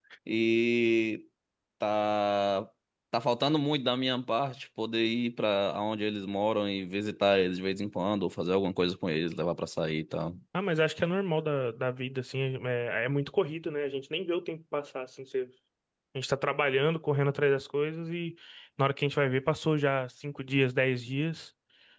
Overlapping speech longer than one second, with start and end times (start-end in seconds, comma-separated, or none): none